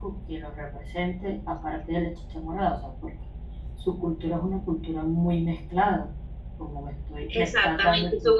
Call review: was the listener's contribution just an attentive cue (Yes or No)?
No